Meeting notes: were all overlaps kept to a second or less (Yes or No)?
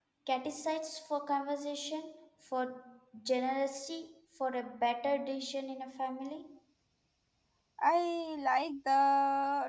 Yes